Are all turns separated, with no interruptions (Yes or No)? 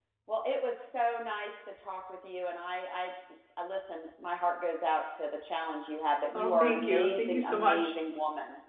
No